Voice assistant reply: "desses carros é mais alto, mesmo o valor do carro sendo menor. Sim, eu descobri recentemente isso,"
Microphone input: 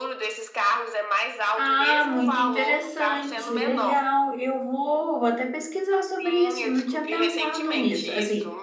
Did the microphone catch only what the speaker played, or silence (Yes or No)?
No